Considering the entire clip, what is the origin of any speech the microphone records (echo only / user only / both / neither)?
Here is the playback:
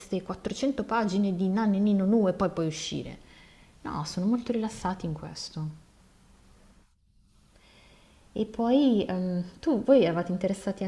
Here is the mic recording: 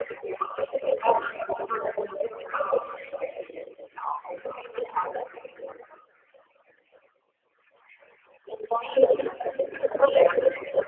echo only